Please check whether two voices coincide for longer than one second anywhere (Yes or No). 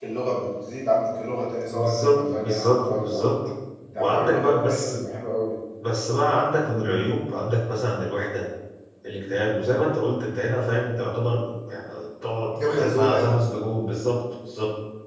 Yes